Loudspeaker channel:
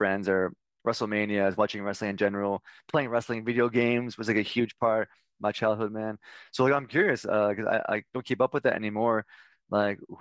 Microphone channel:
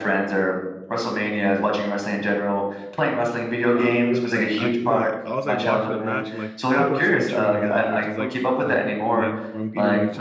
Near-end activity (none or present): present